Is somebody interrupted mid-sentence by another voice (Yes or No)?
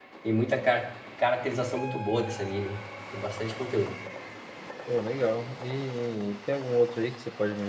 No